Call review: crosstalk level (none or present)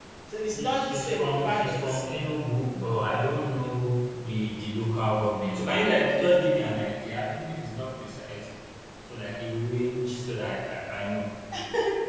present